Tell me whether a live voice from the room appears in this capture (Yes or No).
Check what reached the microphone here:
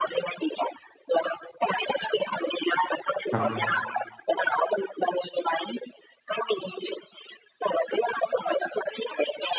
Yes